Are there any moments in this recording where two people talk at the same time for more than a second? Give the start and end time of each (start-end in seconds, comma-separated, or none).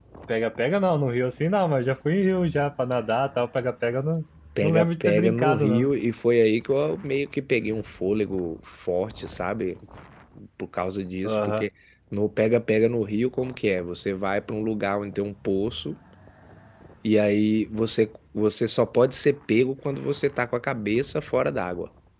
4.6-5.9